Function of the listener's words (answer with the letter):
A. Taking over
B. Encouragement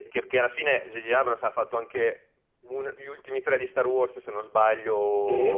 A